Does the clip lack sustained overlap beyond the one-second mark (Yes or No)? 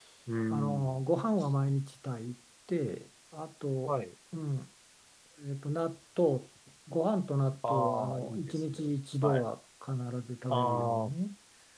No